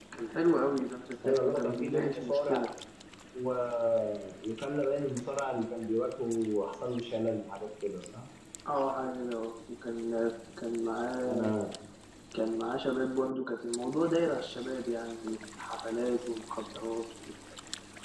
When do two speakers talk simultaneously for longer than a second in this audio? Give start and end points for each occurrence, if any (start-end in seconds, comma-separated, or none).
1.2-2.6